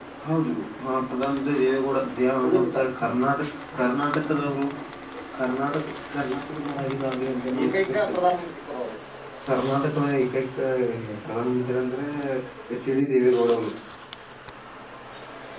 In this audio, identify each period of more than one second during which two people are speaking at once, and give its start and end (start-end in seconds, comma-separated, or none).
none